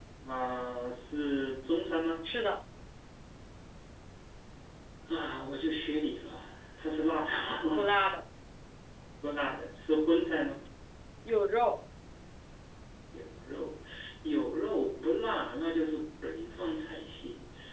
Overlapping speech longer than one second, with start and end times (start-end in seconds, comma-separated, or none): none